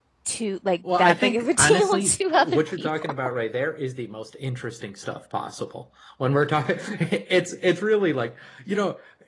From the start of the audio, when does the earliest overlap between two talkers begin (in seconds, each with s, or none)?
1.0 s